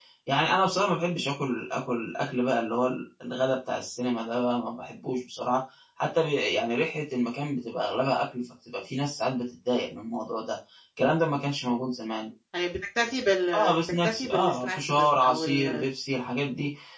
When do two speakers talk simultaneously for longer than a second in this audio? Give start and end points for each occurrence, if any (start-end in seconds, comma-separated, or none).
13.5-15.9